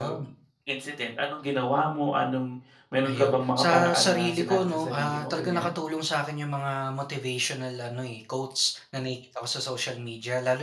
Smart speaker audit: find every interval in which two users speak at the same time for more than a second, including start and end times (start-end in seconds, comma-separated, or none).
3.0-5.8